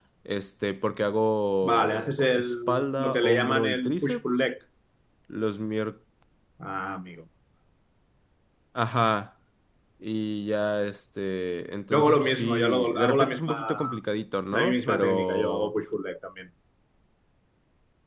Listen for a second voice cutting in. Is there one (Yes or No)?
Yes